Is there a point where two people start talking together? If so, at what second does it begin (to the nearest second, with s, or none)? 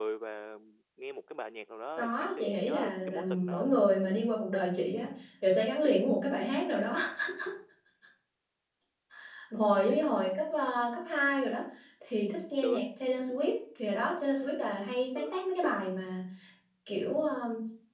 2 s